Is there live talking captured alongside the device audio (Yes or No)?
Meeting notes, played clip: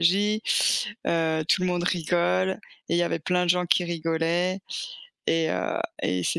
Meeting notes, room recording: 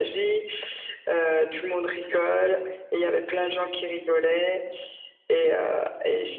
No